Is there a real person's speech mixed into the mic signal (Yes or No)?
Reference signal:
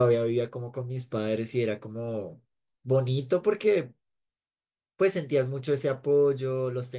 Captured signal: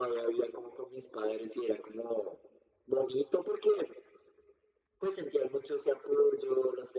No